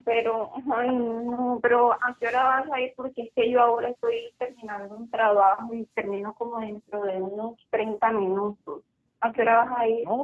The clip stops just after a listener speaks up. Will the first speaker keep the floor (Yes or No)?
No